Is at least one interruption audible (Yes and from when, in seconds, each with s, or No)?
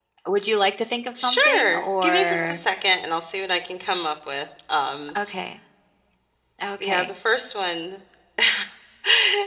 Yes, from 1.2 s